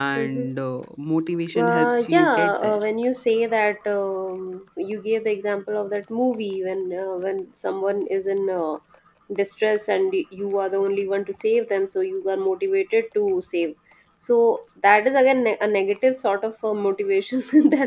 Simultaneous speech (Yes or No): Yes